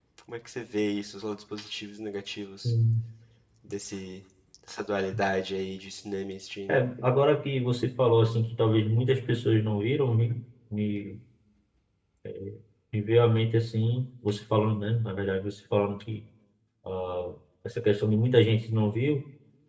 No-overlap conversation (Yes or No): Yes